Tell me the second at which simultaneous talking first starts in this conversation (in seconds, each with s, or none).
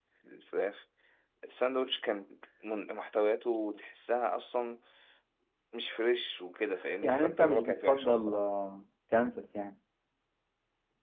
7.0 s